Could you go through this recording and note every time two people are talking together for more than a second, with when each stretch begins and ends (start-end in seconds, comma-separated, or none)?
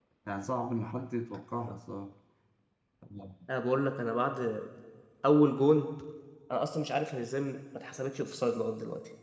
none